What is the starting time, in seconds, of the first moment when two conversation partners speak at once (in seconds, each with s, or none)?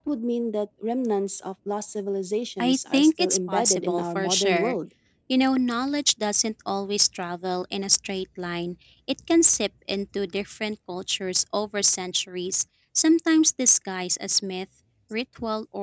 2.6 s